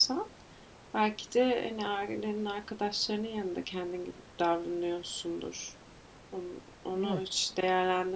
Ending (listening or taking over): listening